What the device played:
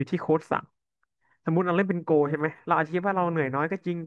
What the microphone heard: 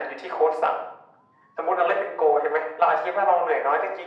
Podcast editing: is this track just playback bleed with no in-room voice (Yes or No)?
Yes